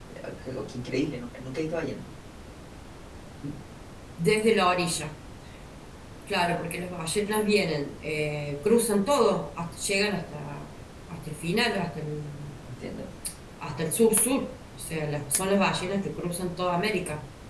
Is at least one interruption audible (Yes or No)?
No